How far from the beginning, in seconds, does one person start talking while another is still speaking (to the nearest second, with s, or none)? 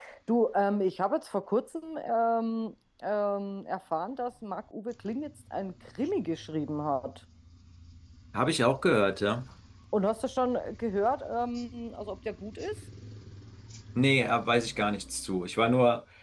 none